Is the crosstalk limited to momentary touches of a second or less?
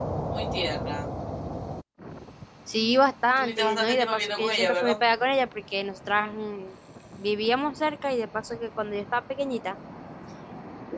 No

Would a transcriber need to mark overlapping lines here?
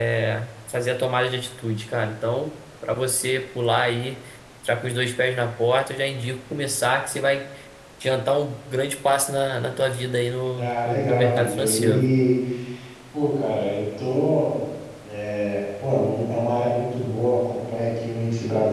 Yes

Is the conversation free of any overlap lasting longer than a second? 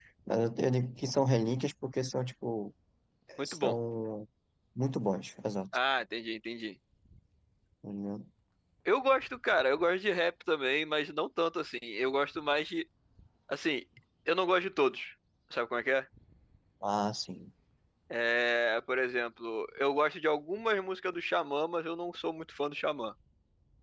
Yes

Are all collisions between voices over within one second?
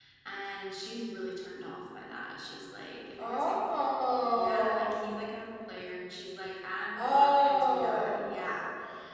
No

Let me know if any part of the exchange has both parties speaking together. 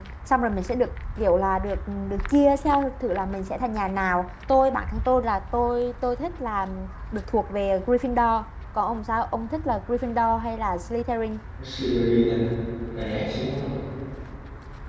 No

